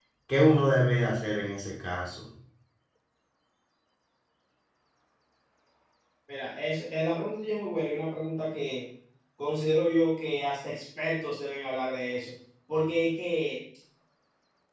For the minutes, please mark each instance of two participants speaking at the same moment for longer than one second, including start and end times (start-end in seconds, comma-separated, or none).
none